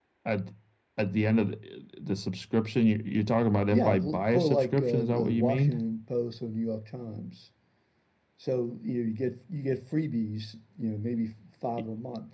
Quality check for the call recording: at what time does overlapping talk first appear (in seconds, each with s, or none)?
3.7 s